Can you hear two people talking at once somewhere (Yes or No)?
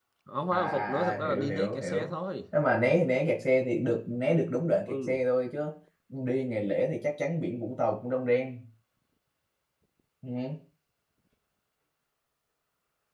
Yes